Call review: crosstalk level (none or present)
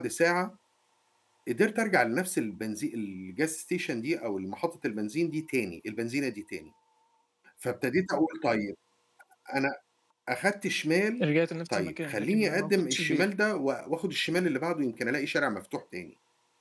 present